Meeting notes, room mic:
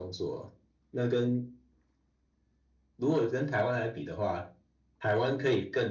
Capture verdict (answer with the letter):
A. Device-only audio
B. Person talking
A